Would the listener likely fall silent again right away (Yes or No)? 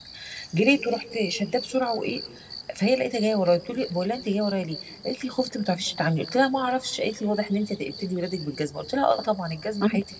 Yes